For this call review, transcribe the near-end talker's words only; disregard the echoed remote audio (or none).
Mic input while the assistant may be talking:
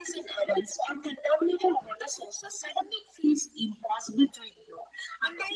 none